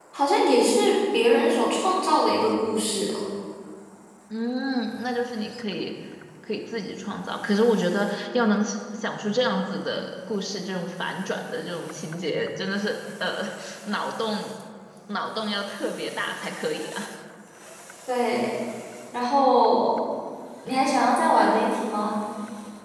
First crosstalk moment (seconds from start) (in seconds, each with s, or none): none